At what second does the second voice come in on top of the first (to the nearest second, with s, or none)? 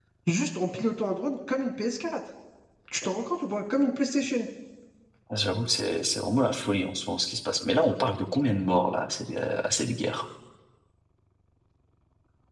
none